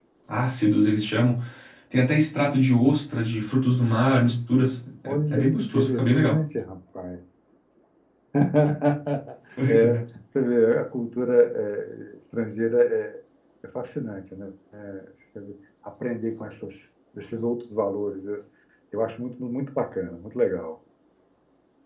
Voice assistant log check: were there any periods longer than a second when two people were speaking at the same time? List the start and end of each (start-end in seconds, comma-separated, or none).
5.1-6.4